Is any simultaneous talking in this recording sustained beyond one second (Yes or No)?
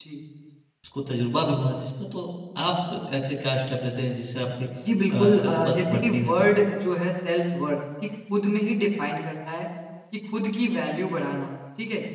Yes